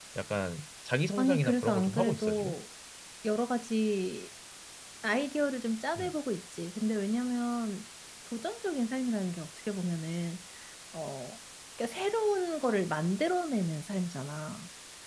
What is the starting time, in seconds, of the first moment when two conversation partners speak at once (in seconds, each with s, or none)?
1.2 s